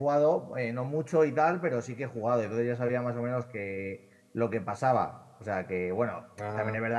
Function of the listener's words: listening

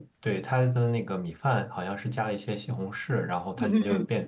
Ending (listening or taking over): listening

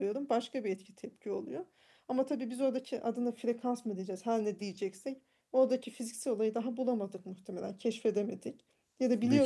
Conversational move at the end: listening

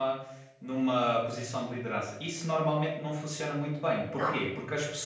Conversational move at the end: listening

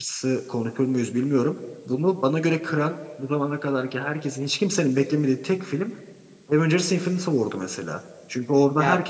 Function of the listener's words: listening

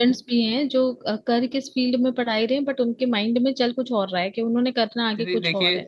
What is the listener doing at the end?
taking over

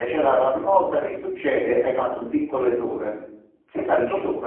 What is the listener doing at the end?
listening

